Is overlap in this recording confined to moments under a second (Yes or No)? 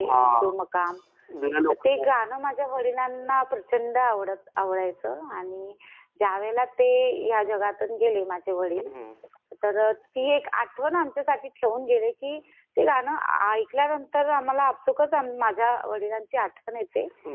Yes